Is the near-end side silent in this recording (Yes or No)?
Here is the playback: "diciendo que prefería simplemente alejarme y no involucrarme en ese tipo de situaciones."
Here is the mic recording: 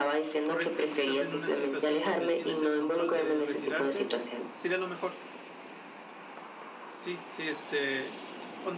No